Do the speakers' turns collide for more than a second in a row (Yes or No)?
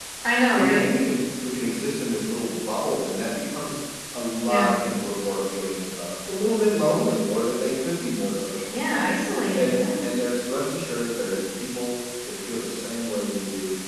No